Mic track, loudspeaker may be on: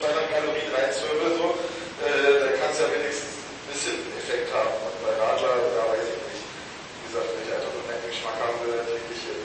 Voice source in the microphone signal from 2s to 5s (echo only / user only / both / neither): echo only